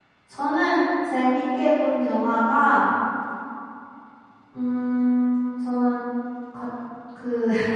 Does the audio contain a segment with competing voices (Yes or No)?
No